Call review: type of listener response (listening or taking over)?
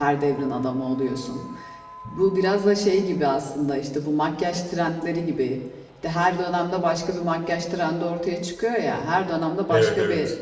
listening